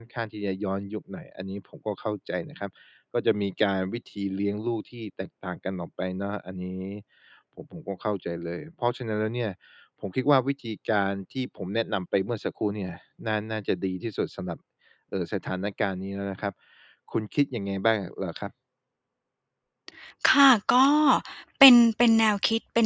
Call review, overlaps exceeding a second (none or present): none